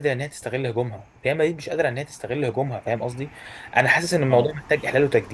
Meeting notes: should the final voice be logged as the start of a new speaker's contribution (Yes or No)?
No